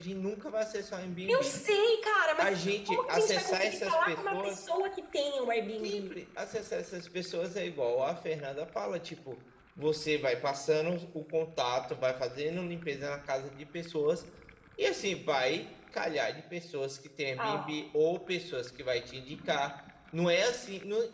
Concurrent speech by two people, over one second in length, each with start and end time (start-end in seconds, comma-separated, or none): 2.4-4.6